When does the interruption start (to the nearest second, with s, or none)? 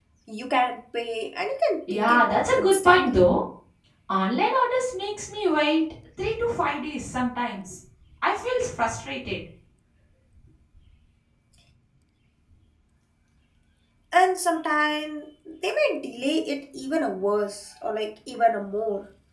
2 s